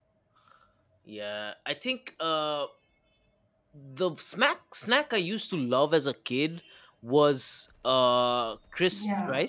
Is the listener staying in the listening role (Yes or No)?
No